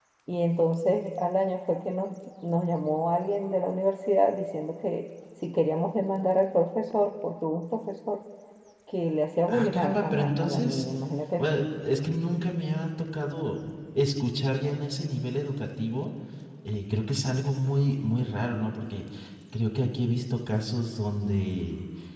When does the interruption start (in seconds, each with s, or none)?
9.5 s